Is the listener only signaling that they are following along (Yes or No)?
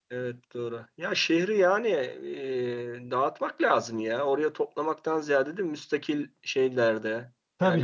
No